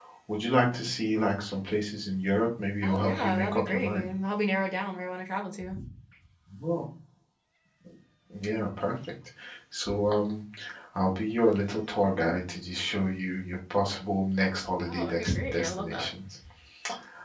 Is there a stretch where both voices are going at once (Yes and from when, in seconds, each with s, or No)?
Yes, from 2.8 s